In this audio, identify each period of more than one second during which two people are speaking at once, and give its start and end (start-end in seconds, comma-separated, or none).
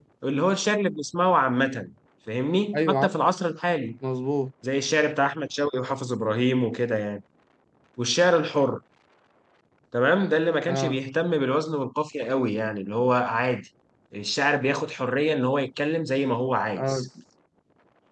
none